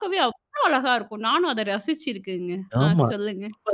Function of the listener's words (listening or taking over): taking over